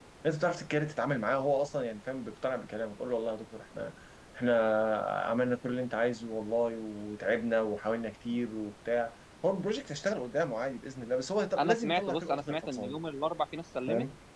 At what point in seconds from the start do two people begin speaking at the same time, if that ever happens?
11.6 s

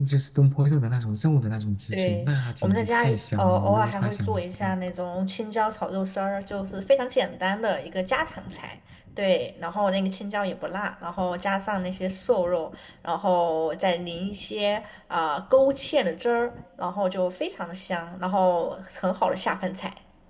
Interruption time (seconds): 1.9 s

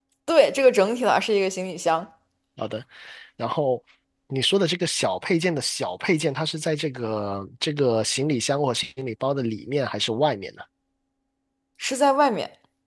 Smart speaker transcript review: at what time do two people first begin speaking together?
none

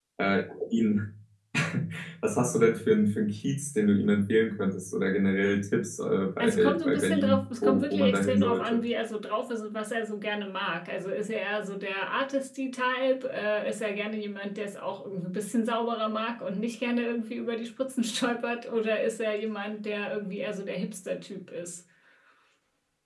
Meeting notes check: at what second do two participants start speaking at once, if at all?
6.4 s

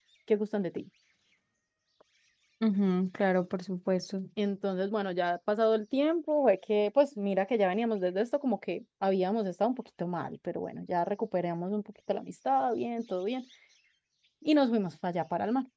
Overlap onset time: none

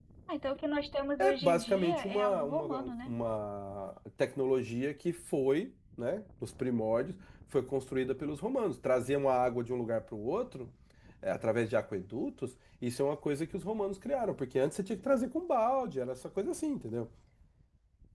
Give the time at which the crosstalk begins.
1.2 s

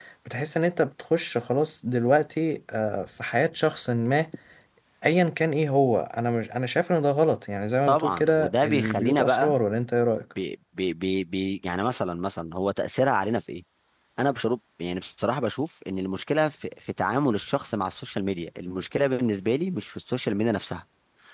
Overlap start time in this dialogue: 7.9 s

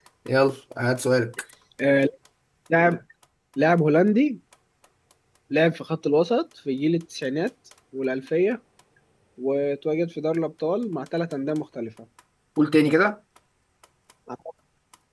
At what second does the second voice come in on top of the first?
none

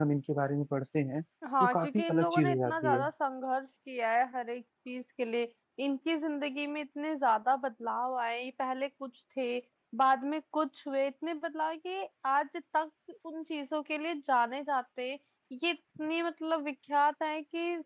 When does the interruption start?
1.6 s

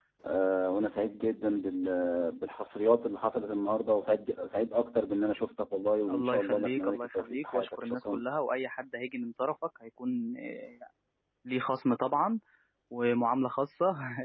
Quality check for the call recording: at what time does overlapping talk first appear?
6.1 s

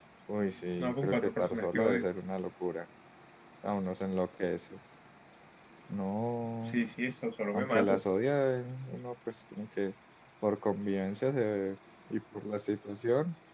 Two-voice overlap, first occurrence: 0.8 s

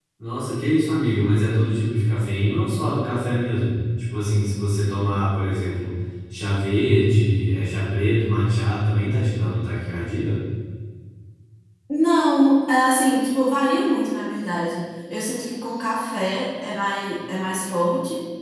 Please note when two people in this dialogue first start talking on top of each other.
none

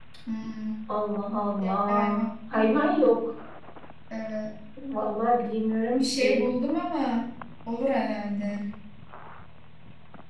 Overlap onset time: 1.9 s

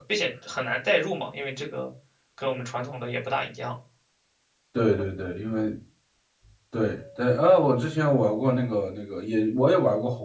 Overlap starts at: none

